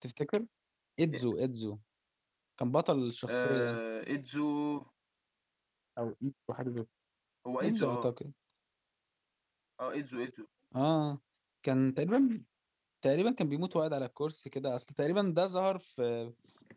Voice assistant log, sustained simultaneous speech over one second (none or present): none